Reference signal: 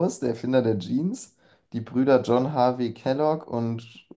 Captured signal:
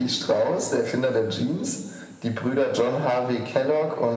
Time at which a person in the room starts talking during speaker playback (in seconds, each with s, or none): none